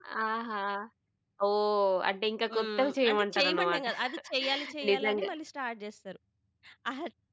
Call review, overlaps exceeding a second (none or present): present